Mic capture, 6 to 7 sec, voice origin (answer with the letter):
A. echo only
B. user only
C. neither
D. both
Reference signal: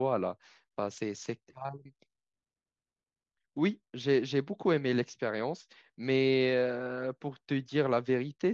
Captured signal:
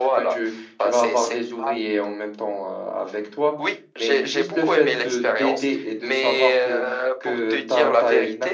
D